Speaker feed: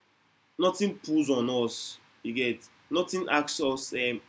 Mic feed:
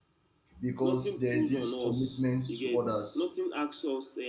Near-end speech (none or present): present